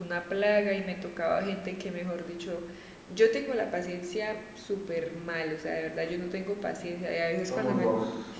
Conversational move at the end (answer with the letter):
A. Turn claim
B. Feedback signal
B